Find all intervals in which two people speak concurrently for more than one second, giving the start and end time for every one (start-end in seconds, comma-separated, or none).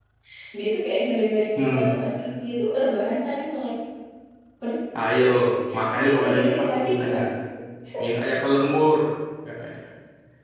5.9-7.2